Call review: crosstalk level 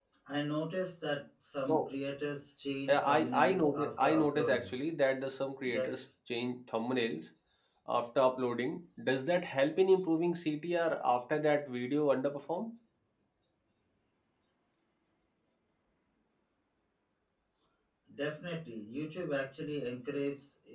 present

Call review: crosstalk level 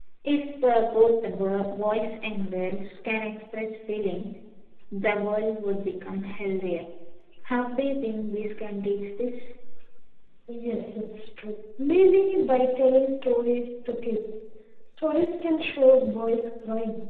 none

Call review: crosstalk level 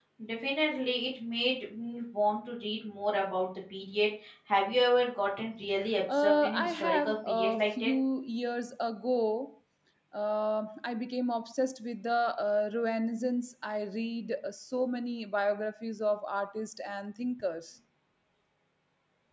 present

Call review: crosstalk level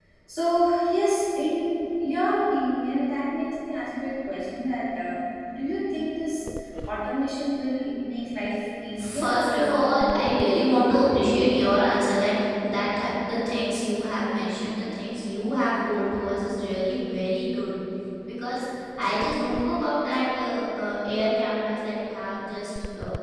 present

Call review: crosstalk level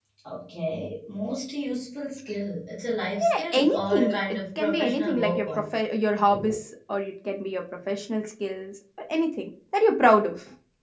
present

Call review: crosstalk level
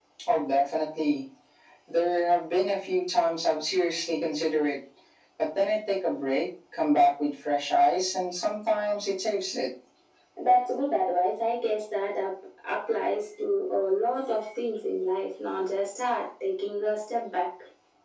none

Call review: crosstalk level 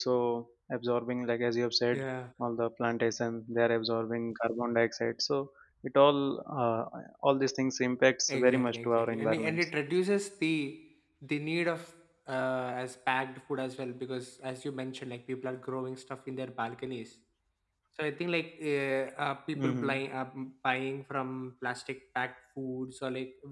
present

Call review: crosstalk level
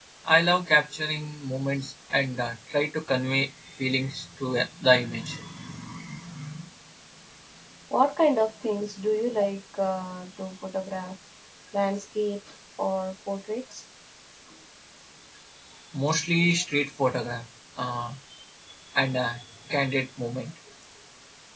none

